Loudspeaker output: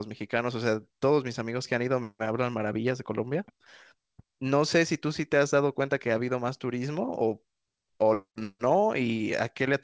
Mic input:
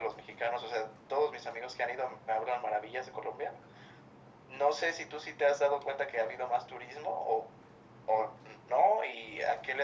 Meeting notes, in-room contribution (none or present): none